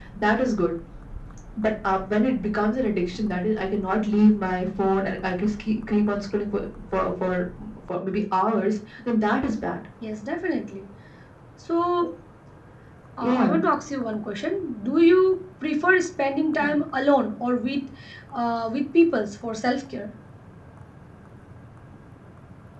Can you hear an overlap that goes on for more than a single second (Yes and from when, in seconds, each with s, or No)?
No